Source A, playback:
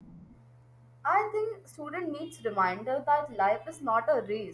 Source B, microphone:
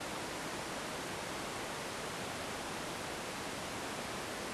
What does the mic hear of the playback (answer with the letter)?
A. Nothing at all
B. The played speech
A